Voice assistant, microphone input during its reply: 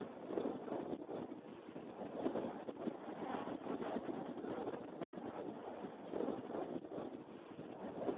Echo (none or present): none